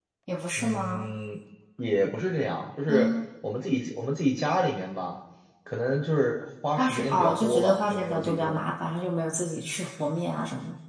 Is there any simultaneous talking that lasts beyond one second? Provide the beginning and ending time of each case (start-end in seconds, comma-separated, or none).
6.8-8.6